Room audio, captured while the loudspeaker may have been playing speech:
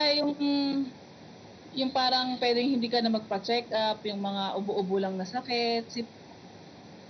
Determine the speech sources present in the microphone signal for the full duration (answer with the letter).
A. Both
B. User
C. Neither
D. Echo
D